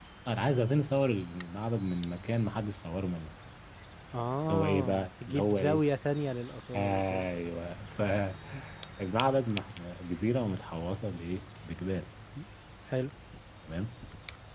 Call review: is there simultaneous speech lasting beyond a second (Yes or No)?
Yes